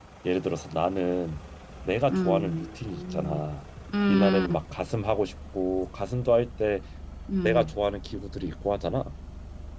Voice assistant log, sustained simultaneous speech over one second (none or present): present